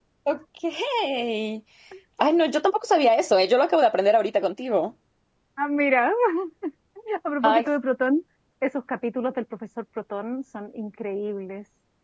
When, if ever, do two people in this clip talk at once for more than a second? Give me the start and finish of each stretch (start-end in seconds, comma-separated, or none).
none